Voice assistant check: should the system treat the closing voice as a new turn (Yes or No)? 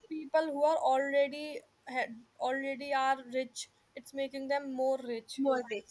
Yes